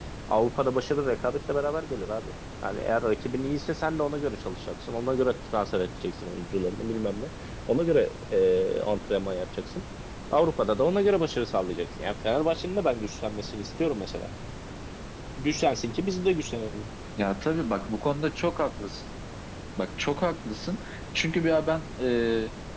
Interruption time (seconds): none

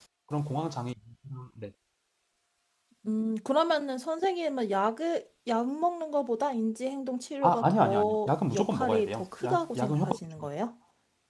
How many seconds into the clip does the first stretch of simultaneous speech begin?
7.4 s

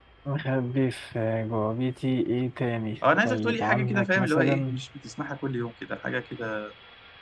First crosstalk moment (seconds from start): 3.0 s

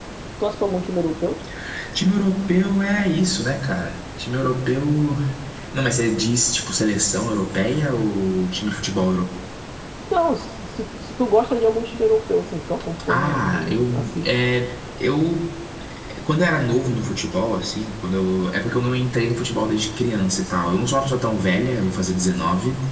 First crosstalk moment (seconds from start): 13.1 s

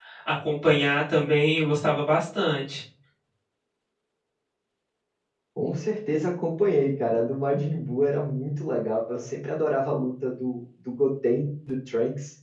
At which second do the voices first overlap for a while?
none

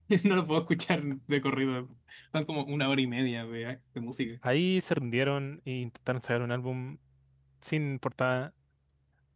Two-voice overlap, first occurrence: none

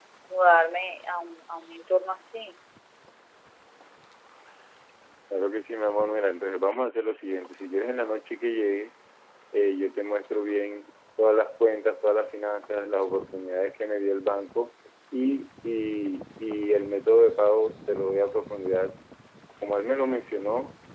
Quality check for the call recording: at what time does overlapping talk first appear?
none

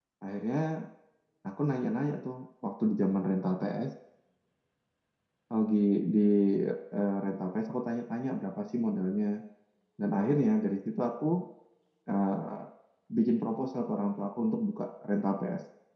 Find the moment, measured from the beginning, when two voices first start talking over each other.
none

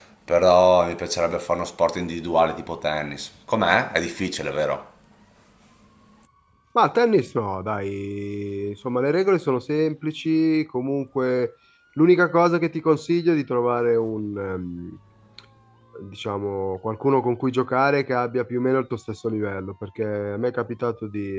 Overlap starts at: none

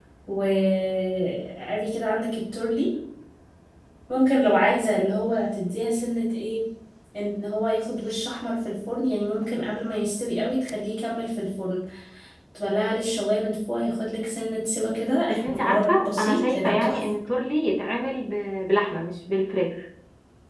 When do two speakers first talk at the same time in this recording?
15.3 s

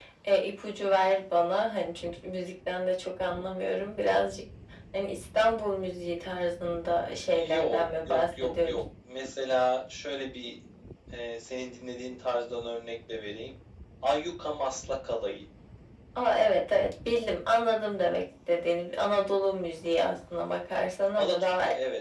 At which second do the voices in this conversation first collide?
7.3 s

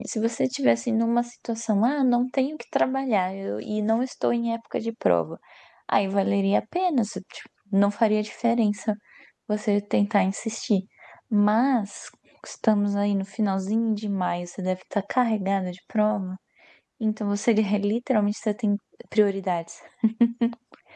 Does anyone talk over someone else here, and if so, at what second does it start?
none

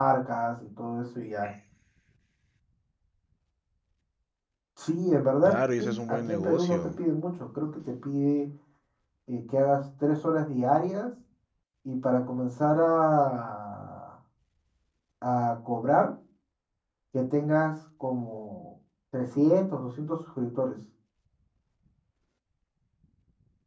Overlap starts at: 5.4 s

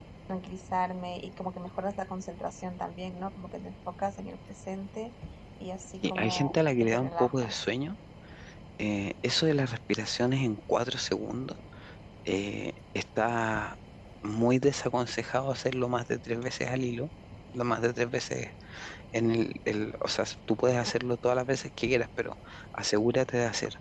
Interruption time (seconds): 6.0 s

